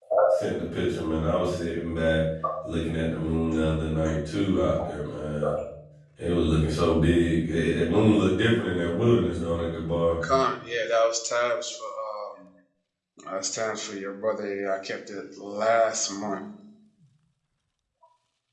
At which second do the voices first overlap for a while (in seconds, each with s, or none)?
none